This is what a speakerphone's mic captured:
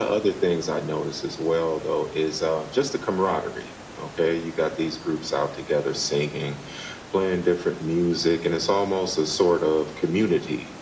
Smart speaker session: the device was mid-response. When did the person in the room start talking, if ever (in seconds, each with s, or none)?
none